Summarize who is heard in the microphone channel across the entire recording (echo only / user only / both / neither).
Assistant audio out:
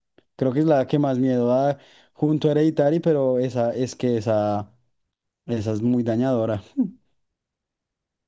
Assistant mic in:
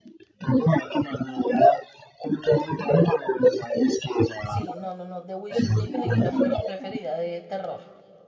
both